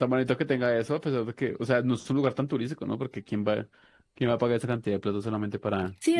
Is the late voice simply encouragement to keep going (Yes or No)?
No